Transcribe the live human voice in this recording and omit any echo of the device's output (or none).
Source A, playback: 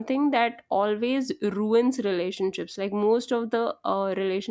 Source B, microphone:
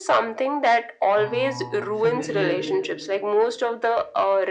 uh, familial